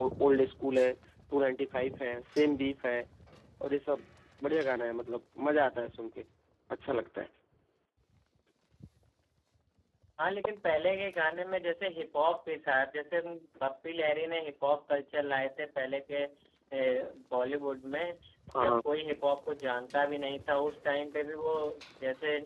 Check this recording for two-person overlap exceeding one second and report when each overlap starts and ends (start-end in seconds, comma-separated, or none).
none